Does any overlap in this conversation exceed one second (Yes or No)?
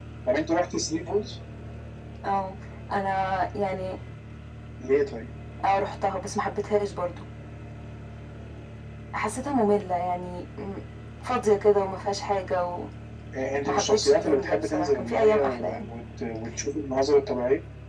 Yes